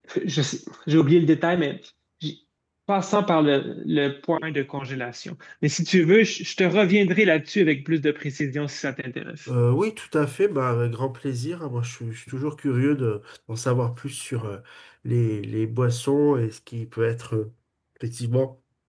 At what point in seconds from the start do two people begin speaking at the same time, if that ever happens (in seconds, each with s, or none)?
none